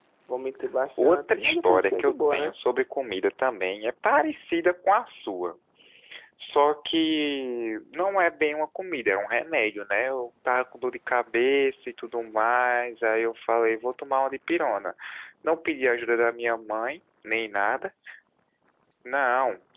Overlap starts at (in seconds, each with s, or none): 1.0 s